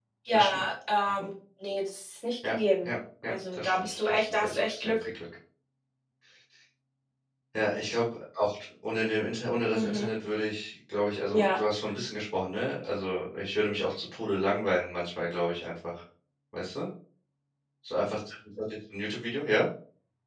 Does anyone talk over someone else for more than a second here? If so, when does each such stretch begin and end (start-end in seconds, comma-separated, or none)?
3.3-5.1